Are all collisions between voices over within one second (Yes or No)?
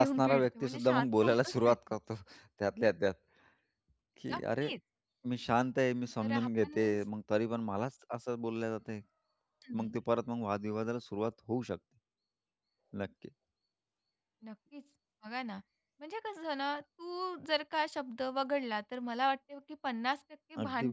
No